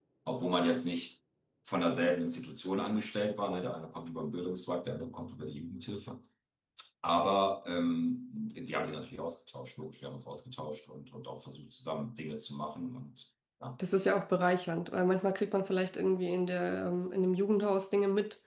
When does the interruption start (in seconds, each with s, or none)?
none